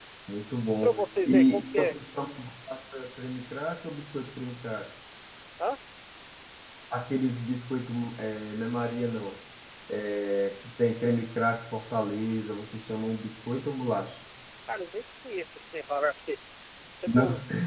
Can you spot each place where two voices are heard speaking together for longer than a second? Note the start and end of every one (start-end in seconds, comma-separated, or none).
0.7-2.0